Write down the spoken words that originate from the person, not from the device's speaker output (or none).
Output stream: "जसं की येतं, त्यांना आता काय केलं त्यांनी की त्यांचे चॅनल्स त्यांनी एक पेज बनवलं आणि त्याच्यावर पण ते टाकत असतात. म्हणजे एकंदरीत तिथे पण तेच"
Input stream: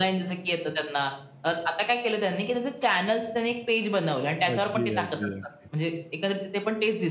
अच्छा. अगदी, अगदी, अगदी.